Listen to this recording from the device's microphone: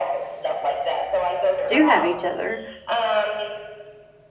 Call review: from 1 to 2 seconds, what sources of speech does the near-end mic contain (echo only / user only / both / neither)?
both